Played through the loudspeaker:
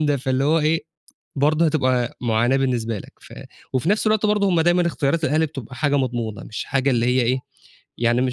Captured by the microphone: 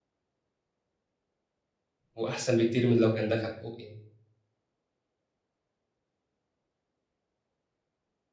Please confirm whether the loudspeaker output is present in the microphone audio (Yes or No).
No